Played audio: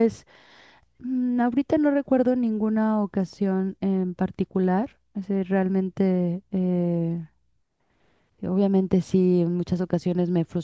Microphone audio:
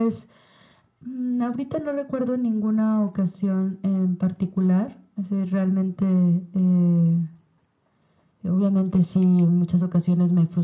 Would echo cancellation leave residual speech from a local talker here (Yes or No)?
No